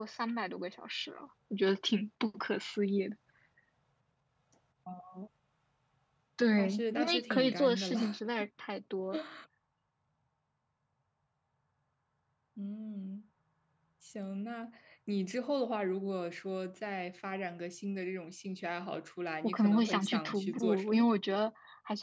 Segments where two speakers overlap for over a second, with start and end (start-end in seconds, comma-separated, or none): 6.6-8.0, 19.4-21.1